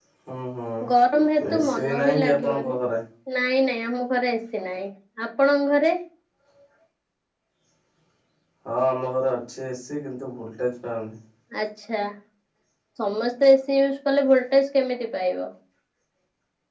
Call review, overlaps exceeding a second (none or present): present